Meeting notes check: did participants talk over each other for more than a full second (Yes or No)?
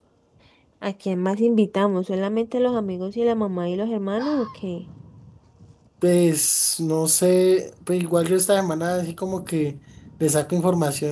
No